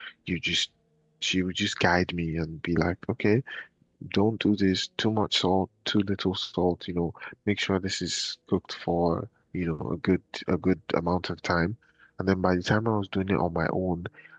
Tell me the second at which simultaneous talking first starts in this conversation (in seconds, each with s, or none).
none